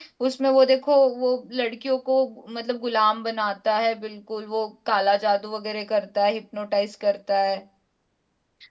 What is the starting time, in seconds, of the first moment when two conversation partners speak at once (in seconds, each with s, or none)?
none